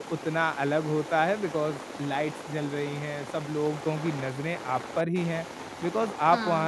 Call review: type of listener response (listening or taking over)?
listening